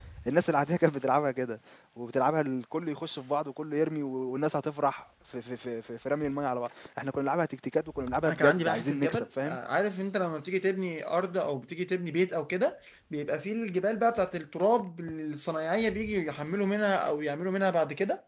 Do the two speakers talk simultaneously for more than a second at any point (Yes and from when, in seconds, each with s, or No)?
Yes, from 8.2 s